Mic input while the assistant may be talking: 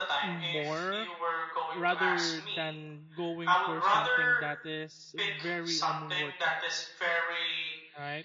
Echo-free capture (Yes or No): No